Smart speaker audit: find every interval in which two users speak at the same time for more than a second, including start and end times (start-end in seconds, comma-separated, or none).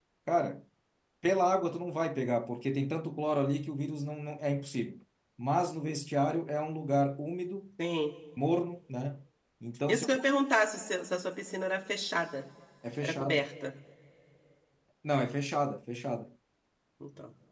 none